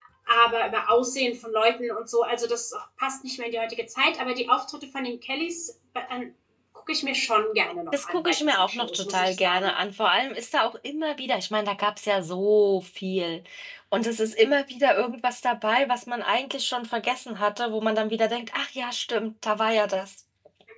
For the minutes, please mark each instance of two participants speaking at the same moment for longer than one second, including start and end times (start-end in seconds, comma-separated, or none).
7.9-9.7